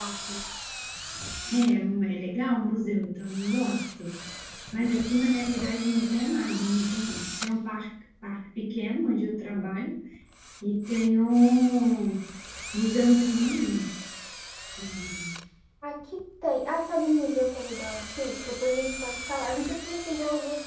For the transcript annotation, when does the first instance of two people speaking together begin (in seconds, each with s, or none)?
none